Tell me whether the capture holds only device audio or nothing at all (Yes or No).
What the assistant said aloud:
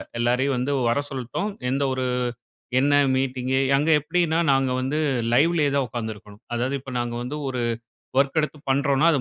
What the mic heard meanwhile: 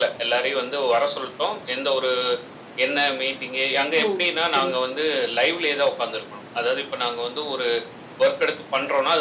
No